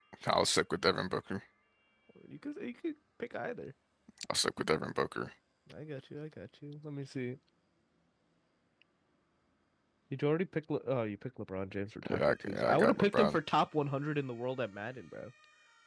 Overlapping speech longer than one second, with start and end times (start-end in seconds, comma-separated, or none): 12.1-13.4